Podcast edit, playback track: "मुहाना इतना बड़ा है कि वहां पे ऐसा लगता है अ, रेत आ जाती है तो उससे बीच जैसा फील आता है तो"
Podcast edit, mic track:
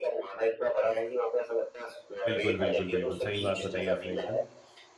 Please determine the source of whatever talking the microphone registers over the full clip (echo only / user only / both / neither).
both